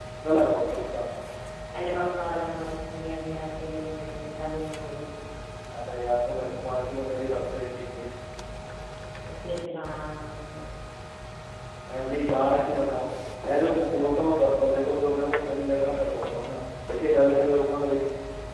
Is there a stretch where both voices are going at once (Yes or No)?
No